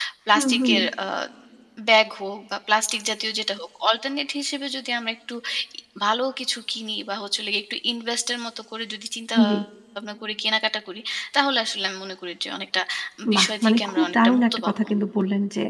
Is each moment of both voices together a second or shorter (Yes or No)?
No